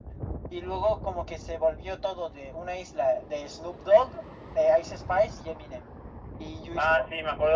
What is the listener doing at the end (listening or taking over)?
taking over